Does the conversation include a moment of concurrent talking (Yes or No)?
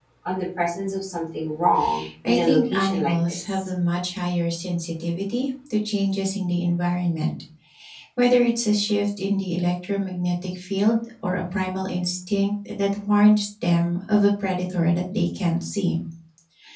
Yes